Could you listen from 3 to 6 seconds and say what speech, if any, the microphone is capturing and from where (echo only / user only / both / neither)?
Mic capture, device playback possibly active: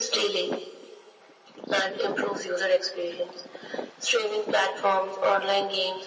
echo only